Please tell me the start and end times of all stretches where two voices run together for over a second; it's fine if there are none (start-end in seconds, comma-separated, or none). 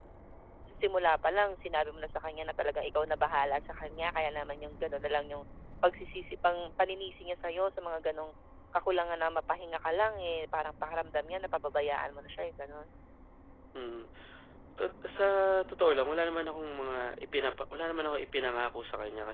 none